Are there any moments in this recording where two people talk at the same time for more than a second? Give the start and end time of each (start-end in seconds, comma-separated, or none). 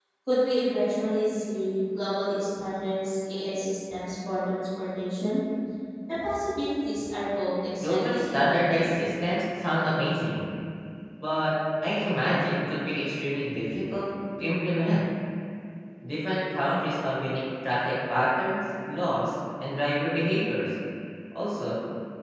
7.8-9.1